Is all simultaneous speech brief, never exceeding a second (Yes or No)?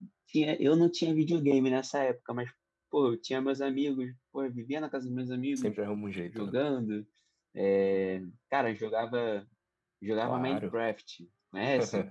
Yes